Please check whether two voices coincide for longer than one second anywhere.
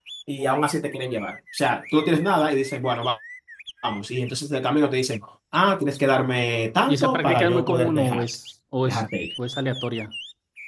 Yes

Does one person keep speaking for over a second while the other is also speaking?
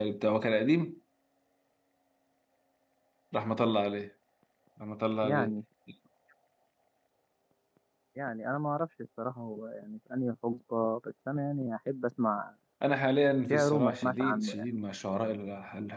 Yes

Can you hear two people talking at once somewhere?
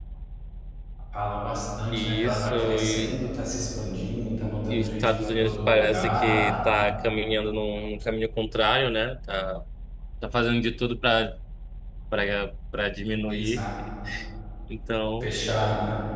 Yes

